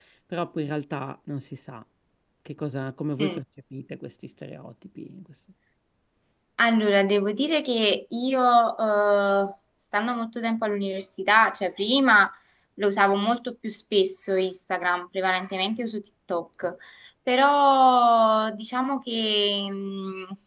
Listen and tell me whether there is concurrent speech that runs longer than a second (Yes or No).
No